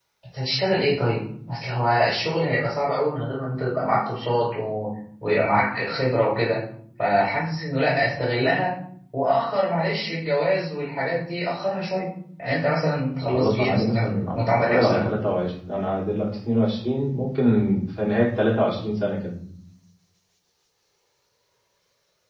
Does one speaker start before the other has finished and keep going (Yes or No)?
Yes